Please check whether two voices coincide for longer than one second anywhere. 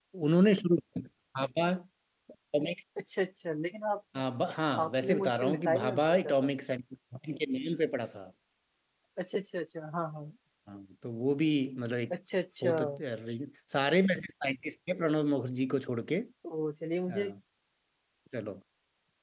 Yes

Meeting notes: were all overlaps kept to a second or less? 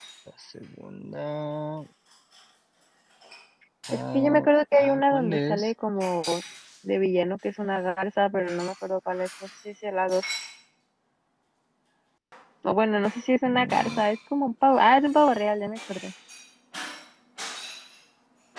No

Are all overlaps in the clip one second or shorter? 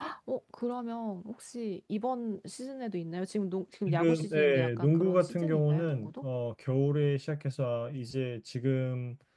No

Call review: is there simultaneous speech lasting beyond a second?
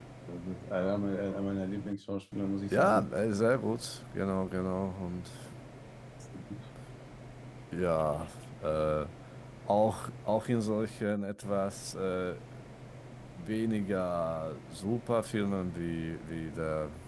No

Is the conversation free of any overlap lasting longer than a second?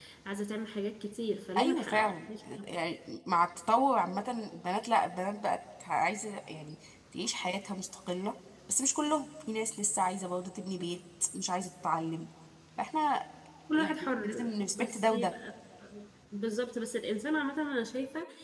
No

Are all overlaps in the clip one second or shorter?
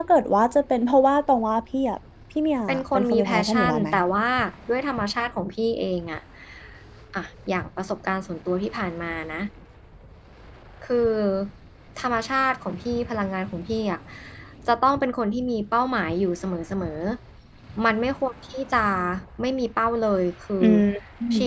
No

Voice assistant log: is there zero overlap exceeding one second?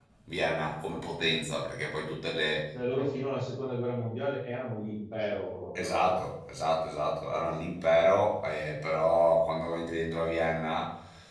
Yes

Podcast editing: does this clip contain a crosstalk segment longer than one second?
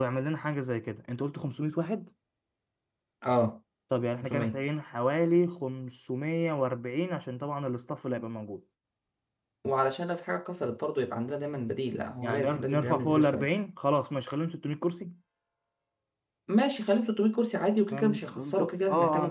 Yes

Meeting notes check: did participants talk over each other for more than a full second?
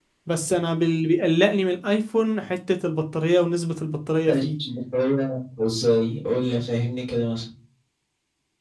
No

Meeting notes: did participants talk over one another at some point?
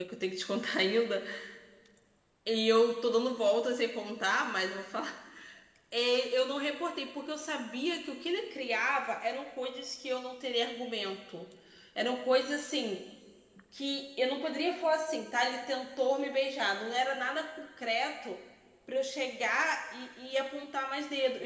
No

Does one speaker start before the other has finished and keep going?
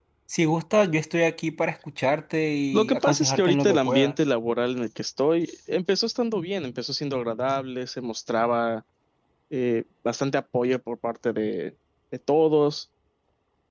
Yes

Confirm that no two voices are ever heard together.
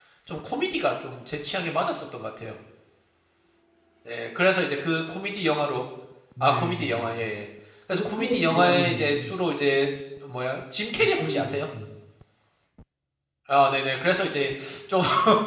No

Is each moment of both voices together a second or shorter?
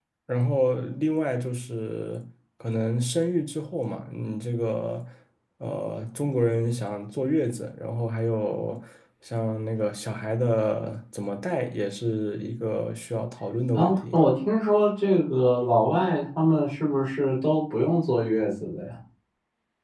Yes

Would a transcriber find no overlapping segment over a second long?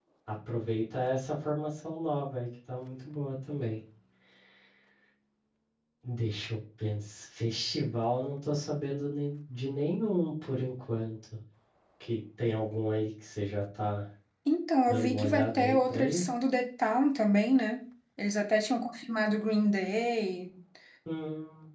No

